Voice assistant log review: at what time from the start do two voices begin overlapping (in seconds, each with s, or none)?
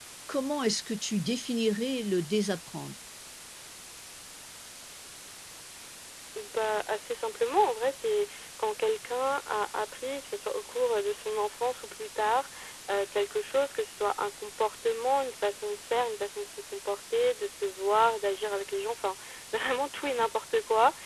none